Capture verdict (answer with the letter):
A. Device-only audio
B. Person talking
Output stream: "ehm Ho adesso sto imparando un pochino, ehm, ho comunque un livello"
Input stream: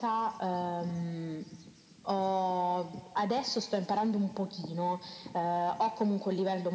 A